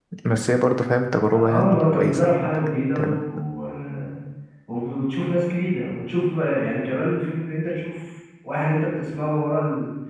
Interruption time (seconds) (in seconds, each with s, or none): 1.3 s